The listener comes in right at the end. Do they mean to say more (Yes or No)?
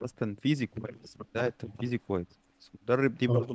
No